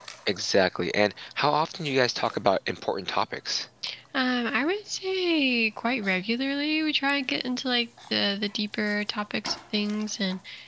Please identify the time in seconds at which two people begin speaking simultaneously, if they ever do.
none

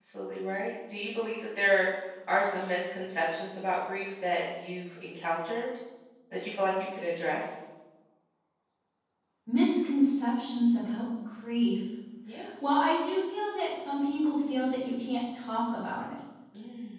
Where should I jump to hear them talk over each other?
none

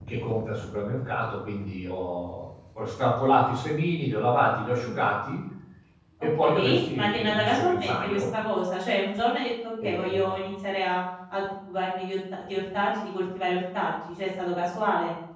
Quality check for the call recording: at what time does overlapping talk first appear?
6.4 s

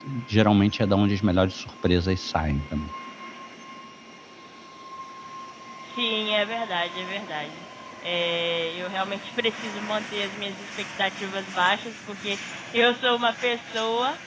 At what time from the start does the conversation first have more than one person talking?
none

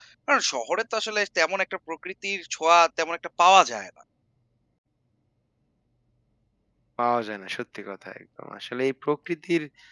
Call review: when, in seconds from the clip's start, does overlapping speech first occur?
none

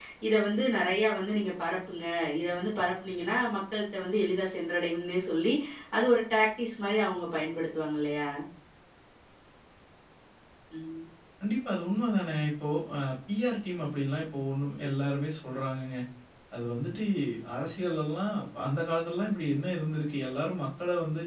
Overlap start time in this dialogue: none

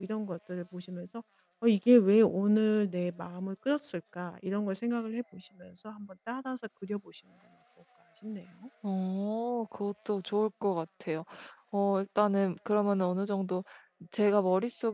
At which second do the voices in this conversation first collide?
none

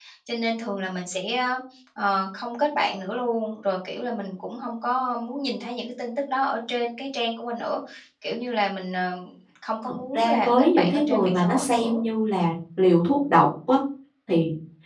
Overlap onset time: 10.1 s

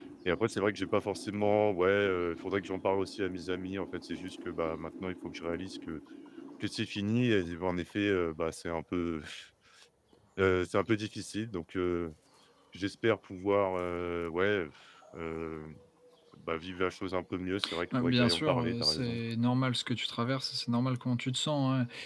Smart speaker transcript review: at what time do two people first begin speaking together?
17.9 s

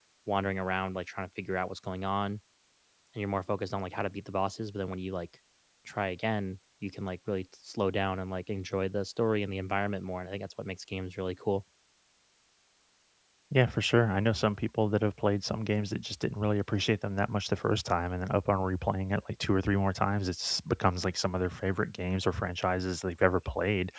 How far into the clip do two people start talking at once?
none

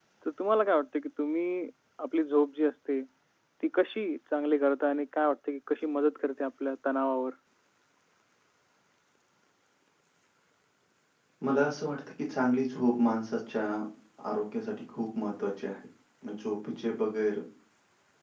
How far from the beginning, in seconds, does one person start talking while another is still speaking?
none

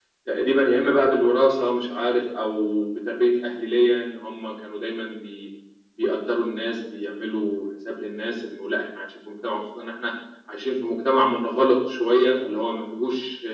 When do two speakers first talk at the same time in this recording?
none

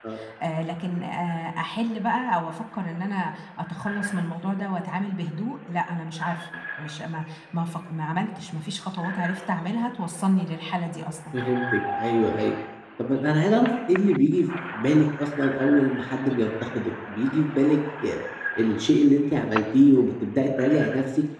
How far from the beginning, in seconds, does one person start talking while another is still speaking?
none

